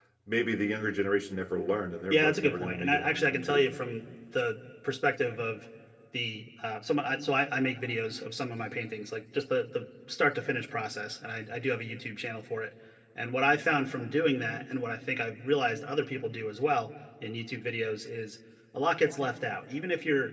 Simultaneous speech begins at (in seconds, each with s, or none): 2.1 s